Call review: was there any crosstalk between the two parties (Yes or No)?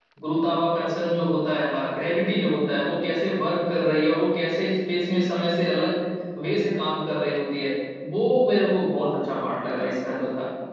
No